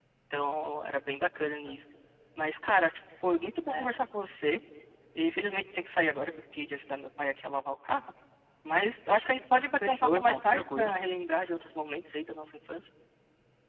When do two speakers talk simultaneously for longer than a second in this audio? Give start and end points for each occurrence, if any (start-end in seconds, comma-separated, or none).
9.5-10.9